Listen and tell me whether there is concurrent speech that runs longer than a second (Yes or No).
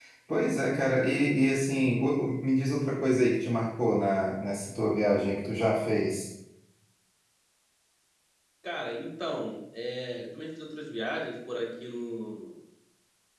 No